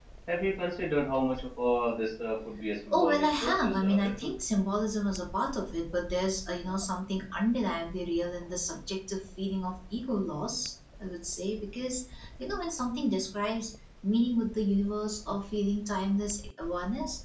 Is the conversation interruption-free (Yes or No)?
No